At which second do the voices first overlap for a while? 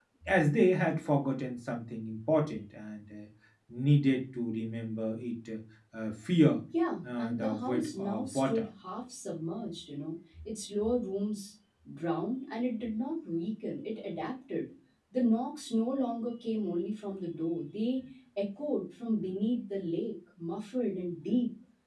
7.2 s

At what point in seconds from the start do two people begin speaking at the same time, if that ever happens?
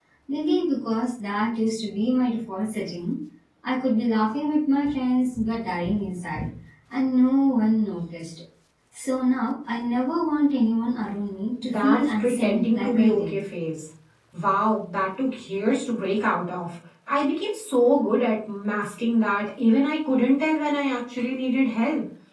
11.6 s

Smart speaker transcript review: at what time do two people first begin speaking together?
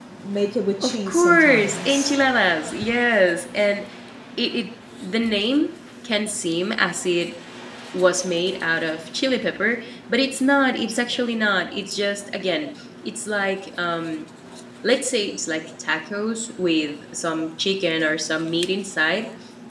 0.9 s

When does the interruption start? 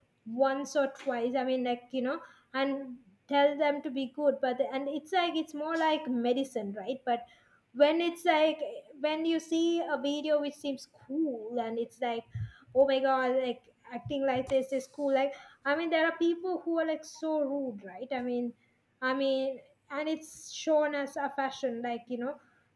none

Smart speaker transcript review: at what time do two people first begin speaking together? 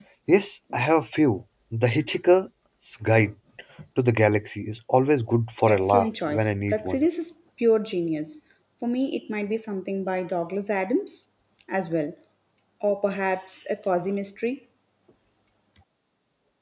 5.7 s

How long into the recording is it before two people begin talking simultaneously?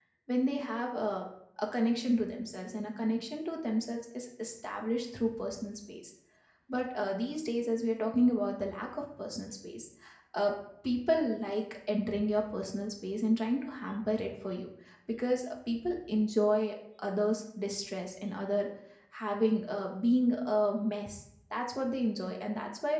none

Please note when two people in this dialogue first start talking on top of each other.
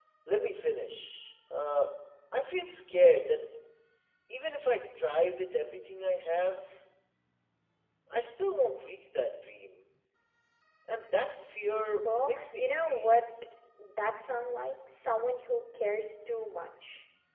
12.1 s

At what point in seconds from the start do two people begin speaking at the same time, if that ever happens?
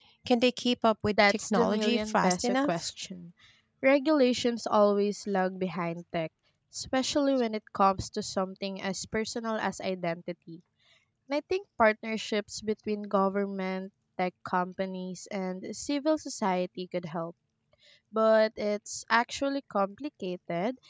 1.3 s

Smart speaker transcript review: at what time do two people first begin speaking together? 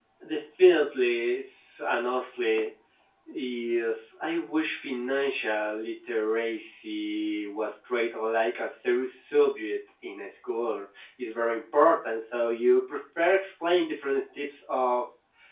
none

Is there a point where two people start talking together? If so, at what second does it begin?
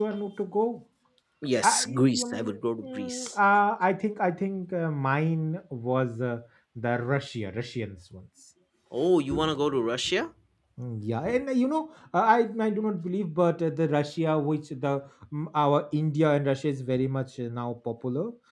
1.6 s

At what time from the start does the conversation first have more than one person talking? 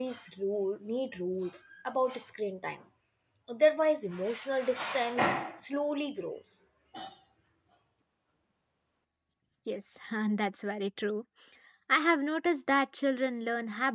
none

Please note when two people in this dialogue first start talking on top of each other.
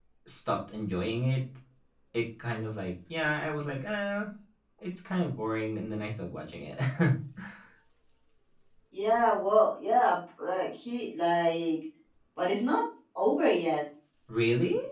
none

